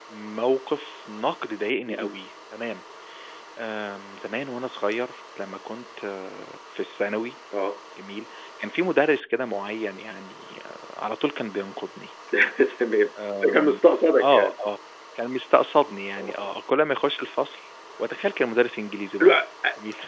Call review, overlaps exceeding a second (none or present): none